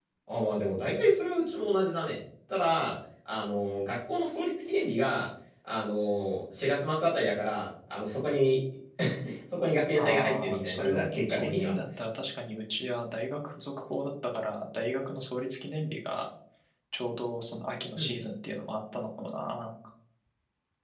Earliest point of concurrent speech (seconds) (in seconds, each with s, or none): 9.9 s